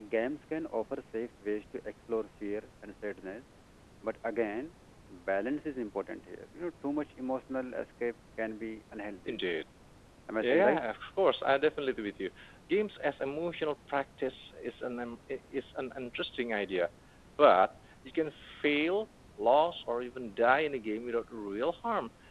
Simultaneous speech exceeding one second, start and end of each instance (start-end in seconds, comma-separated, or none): none